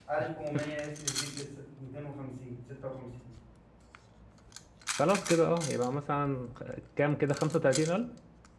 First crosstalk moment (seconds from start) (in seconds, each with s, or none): none